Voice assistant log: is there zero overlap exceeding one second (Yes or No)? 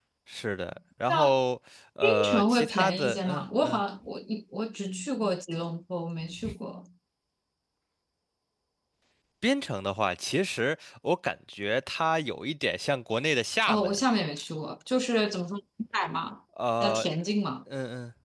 No